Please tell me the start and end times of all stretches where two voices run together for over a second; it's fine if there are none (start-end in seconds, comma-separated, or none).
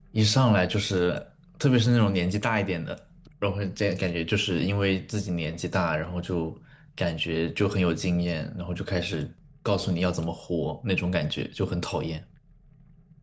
none